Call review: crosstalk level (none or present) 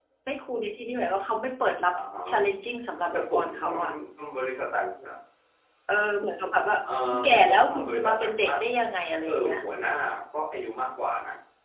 present